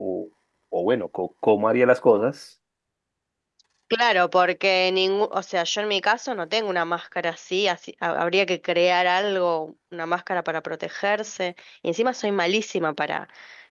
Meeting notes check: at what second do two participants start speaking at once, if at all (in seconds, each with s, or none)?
none